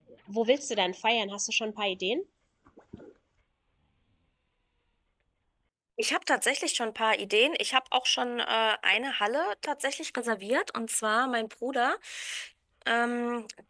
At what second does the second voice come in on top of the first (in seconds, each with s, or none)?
none